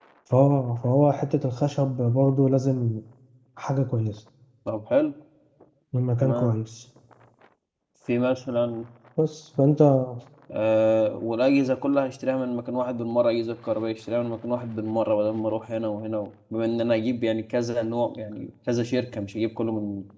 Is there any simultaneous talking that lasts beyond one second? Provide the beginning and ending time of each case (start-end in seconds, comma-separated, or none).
none